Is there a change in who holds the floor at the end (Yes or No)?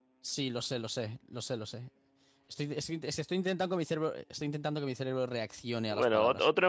Yes